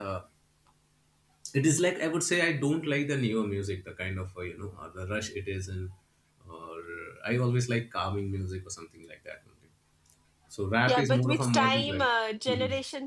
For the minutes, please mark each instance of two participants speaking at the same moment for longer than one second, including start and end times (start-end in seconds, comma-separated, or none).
10.9-12.1